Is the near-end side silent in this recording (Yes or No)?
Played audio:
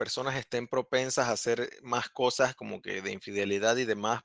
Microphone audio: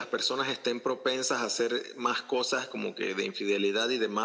Yes